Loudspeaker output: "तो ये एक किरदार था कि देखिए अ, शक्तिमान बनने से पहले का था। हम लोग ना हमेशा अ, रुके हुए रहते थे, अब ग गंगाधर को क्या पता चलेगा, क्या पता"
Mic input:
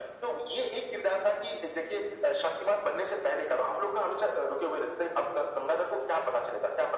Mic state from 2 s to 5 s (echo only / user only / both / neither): echo only